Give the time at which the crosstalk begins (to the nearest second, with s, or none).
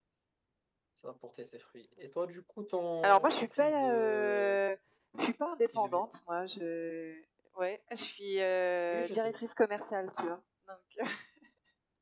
3 s